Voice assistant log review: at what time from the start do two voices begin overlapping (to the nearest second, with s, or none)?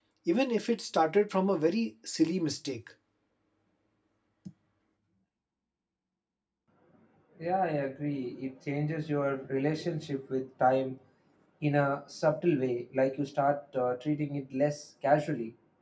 none